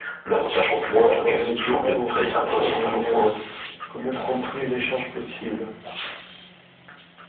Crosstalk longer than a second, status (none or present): present